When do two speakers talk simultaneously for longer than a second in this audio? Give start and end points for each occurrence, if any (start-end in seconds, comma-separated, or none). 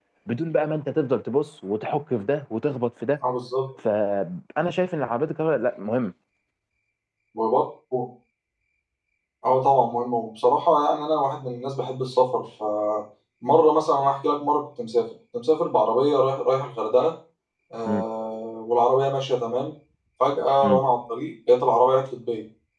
none